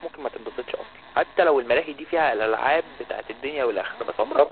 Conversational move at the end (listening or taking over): listening